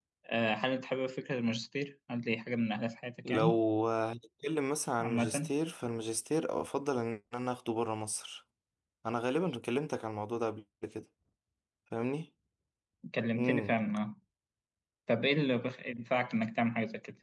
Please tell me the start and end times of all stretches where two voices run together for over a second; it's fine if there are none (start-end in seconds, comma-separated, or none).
none